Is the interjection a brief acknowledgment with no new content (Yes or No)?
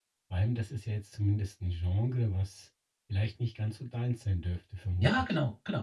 No